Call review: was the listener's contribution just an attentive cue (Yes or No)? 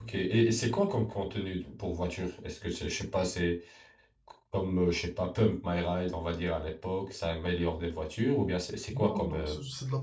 No